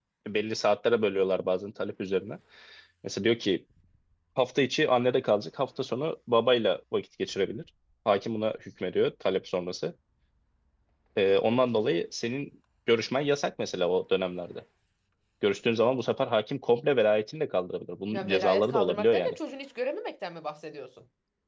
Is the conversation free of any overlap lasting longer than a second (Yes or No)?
No